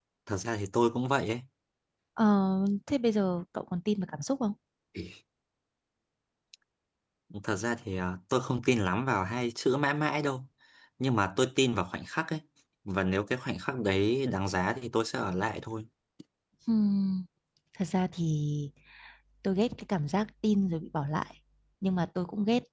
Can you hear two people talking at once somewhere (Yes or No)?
No